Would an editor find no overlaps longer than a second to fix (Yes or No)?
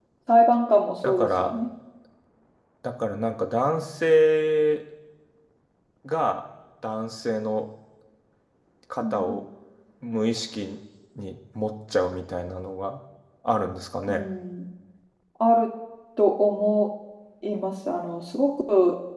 Yes